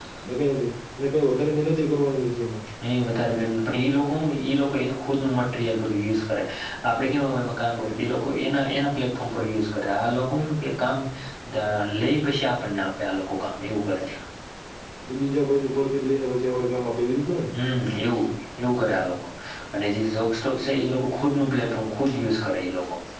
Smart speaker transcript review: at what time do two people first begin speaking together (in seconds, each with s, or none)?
none